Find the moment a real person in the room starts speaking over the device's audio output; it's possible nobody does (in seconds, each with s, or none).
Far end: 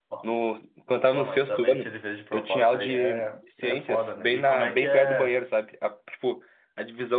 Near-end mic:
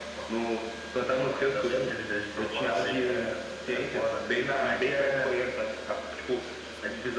none